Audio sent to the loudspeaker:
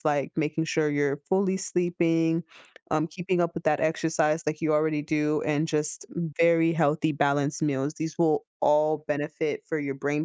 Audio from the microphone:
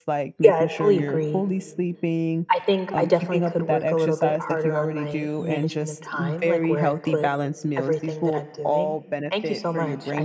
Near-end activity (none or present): present